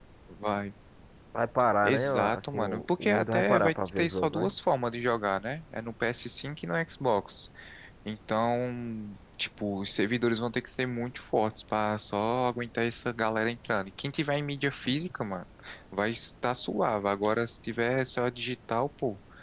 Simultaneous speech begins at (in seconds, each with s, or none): 1.8 s